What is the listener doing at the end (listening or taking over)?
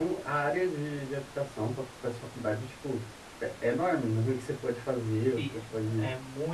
taking over